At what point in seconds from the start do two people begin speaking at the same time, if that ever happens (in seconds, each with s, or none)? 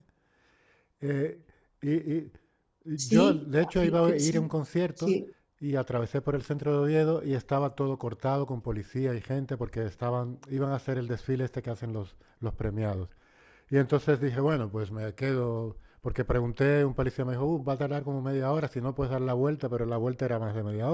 3.0 s